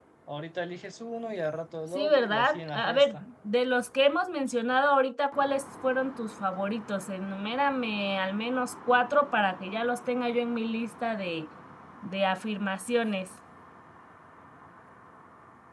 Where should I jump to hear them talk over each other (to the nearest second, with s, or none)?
2 s